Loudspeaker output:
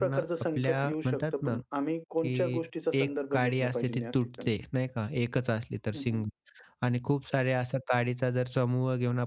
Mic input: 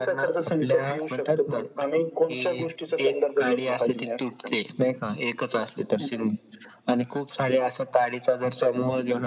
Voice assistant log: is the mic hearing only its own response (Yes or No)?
Yes